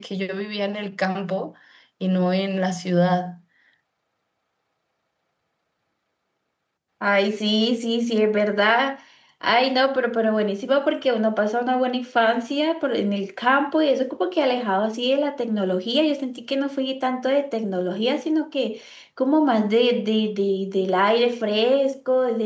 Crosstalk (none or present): none